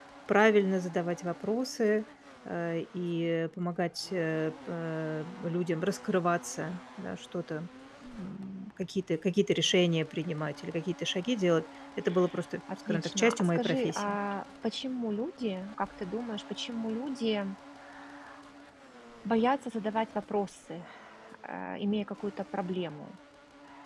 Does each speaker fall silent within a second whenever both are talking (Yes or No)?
No